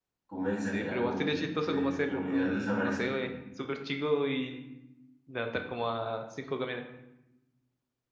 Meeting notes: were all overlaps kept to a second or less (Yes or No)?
No